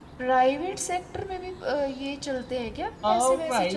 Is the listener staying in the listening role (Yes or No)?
No